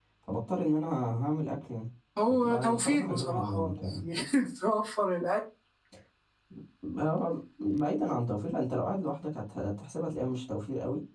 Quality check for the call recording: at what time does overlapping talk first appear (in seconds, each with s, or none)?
2.2 s